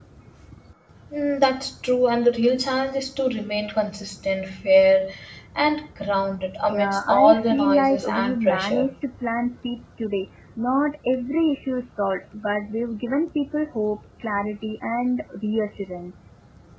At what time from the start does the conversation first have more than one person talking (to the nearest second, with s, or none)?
7 s